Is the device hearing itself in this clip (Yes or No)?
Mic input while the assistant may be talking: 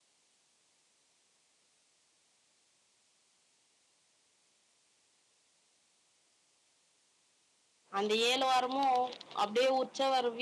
No